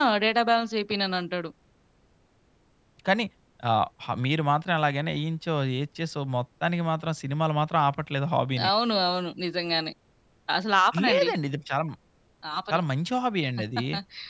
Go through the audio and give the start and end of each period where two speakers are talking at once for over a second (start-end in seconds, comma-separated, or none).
none